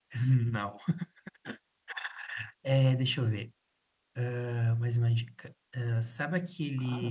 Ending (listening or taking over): listening